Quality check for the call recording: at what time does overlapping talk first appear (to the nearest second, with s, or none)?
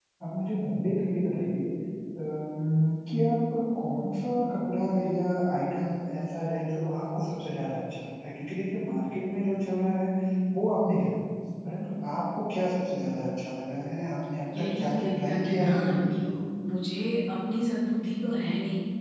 15 s